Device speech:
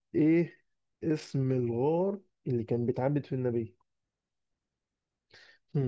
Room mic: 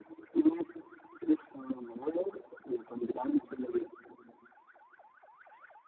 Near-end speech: none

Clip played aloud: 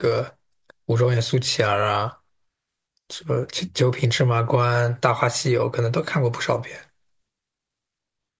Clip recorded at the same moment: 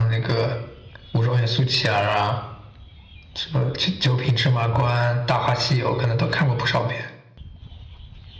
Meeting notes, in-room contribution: none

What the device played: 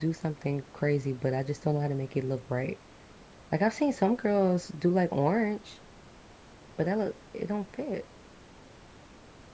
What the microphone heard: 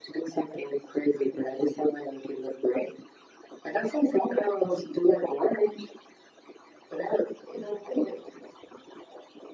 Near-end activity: none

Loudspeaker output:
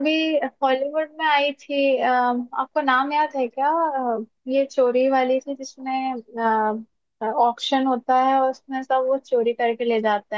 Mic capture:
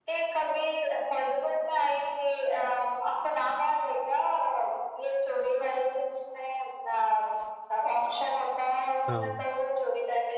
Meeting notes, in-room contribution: present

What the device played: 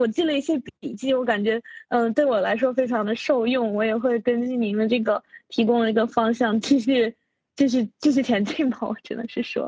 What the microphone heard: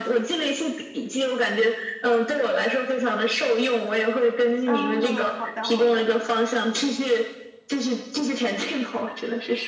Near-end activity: present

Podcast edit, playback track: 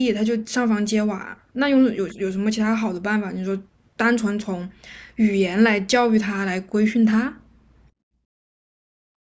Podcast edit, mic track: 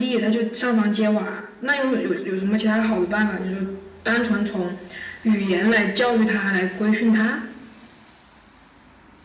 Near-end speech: none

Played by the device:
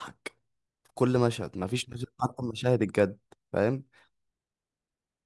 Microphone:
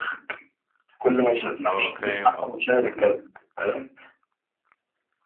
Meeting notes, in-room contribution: present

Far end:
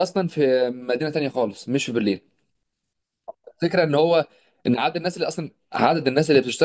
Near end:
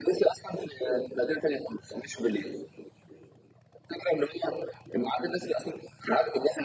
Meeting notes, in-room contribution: none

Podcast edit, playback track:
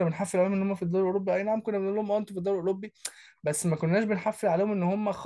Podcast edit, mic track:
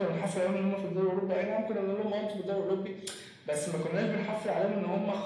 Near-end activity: none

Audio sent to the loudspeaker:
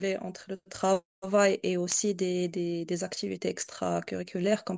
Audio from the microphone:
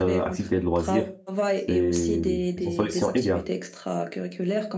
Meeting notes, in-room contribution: present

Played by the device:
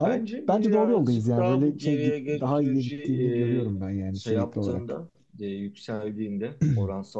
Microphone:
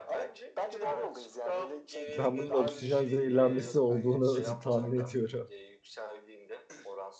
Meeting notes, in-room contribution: present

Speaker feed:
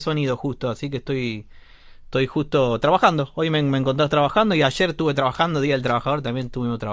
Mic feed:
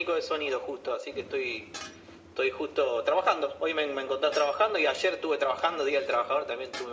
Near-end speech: none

